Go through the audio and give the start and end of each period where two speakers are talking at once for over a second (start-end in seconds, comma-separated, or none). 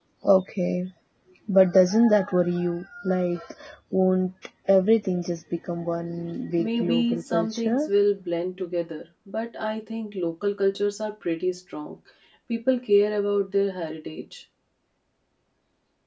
6.6-7.9